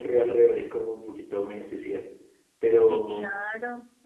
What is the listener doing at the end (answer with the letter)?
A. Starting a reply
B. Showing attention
A